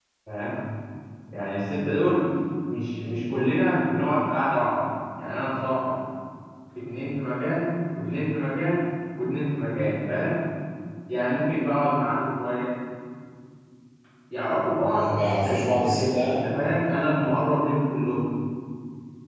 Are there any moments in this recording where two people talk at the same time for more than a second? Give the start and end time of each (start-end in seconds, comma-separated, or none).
14.8-16.4